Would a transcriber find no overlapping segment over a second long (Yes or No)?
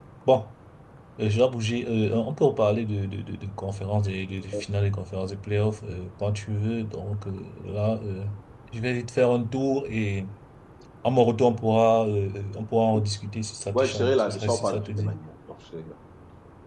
No